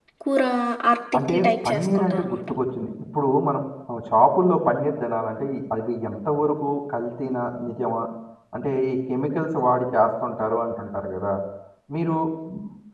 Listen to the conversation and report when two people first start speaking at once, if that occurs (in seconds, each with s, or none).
1.3 s